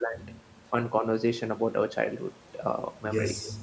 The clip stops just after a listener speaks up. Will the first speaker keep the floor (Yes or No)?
No